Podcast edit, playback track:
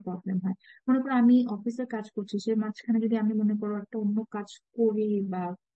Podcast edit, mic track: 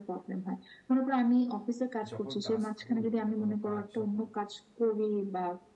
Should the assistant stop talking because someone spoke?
Yes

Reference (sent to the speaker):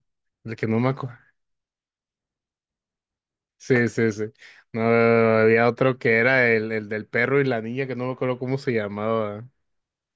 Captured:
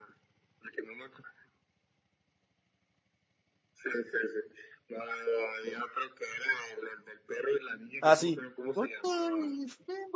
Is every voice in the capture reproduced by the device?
No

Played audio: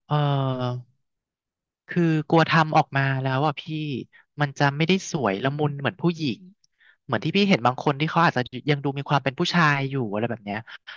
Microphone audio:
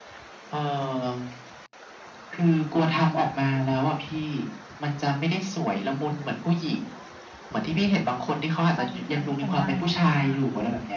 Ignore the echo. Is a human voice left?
Yes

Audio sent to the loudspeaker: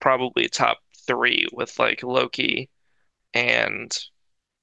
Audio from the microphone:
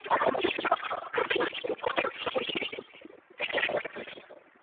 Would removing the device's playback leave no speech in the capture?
Yes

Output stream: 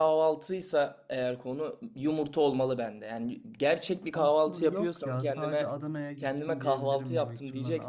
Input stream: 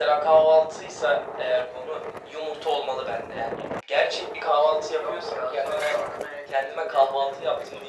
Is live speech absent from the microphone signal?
Yes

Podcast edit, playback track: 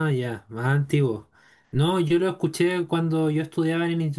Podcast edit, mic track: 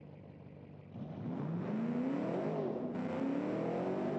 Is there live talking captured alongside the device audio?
No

